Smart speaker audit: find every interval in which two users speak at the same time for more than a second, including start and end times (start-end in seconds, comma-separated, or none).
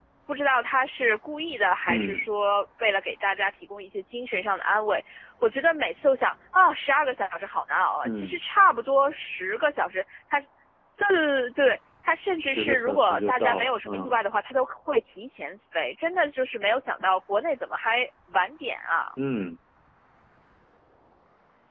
12.4-14.2